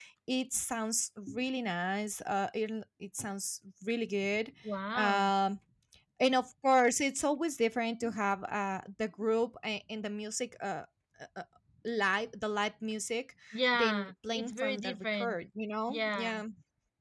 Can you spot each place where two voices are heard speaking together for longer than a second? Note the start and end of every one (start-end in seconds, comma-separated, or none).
13.7-15.4